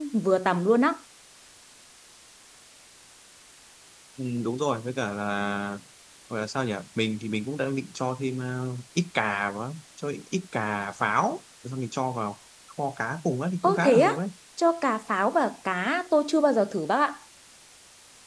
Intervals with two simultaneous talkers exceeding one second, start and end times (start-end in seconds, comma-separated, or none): none